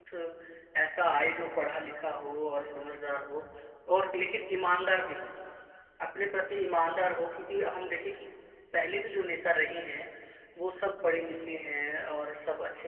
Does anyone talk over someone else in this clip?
No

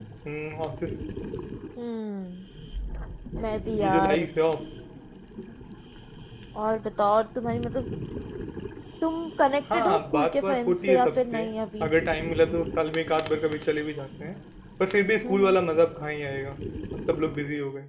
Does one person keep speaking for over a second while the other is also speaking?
Yes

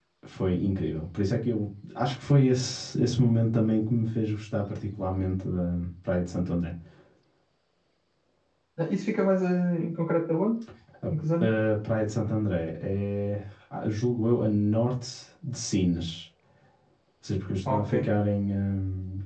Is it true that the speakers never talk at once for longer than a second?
Yes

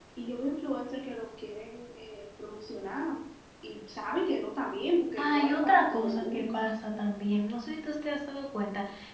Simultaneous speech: Yes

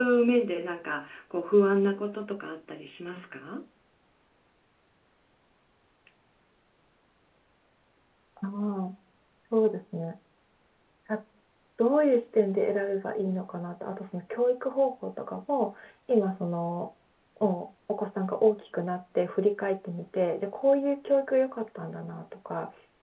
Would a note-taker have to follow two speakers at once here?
No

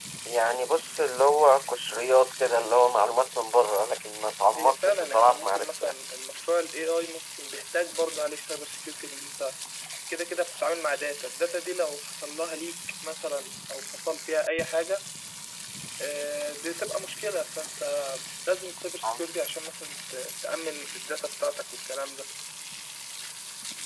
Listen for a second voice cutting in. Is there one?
Yes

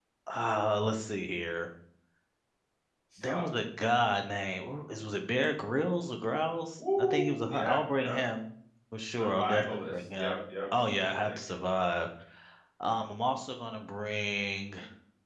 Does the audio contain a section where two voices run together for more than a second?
Yes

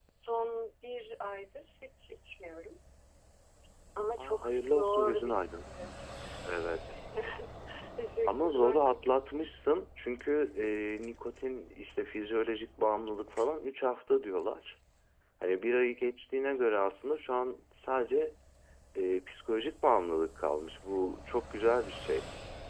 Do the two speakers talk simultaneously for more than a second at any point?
Yes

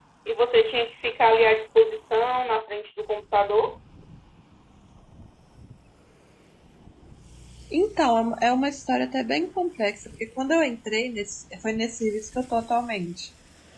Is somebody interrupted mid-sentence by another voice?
No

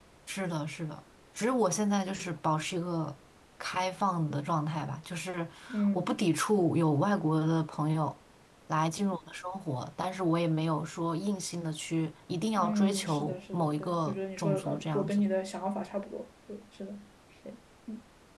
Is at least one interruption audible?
Yes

